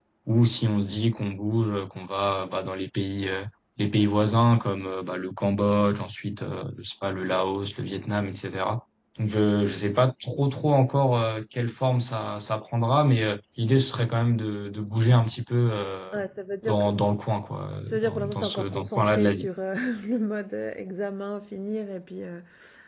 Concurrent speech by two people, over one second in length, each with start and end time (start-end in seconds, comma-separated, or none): 17.9-19.5